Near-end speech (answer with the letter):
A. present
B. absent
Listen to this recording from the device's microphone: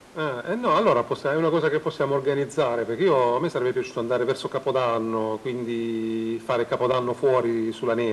B